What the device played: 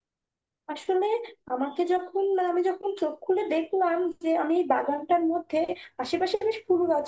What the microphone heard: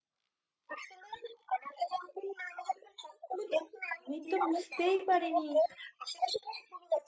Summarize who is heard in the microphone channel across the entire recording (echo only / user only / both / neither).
both